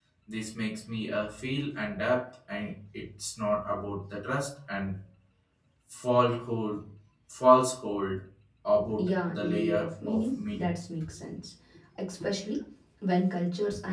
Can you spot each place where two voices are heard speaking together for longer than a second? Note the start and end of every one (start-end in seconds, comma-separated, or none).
9.1-10.7